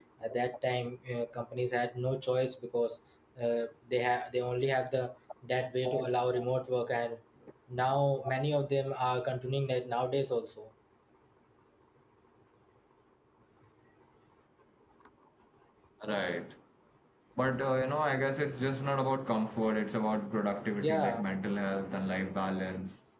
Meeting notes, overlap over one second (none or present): none